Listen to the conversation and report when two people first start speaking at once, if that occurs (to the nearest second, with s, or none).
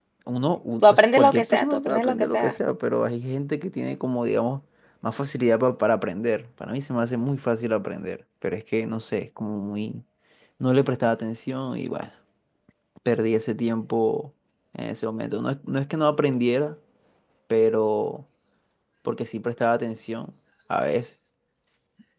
1 s